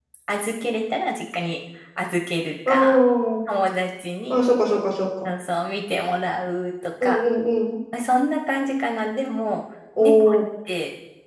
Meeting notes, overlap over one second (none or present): none